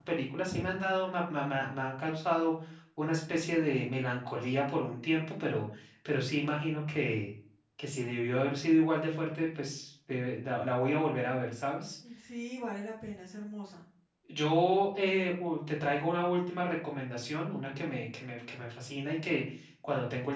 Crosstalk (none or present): none